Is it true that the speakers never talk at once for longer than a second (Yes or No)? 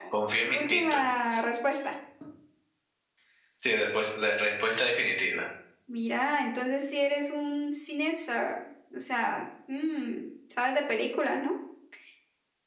Yes